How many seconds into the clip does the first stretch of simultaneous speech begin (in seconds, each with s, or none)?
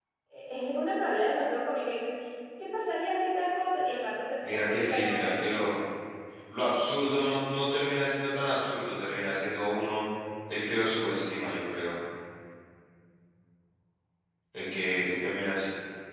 4.4 s